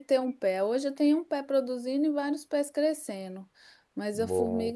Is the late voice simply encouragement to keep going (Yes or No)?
Yes